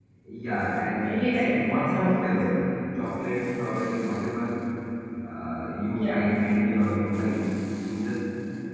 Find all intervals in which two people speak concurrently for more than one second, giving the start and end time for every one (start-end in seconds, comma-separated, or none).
0.8-2.6